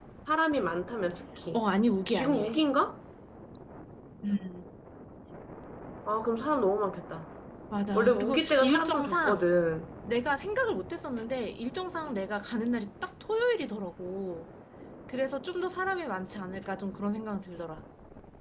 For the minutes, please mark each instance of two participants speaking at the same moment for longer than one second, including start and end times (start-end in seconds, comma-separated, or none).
7.9-9.5